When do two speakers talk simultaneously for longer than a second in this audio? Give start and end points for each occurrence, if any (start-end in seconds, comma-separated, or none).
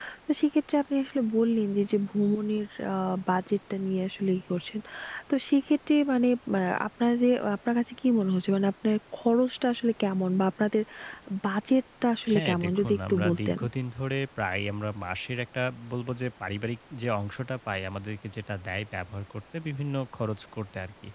12.3-13.6